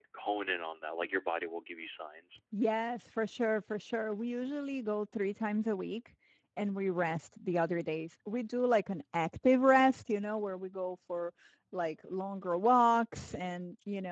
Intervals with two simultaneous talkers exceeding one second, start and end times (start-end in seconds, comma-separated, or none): none